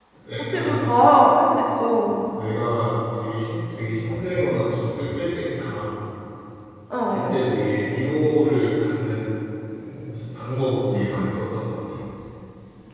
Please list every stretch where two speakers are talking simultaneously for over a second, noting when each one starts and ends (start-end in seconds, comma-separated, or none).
none